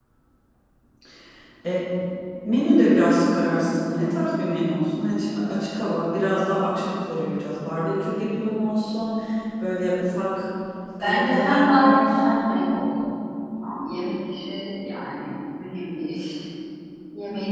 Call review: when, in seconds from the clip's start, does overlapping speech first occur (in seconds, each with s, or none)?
11.0 s